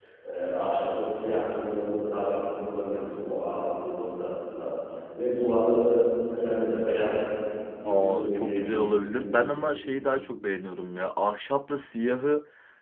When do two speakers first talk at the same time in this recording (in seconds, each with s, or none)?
7.8 s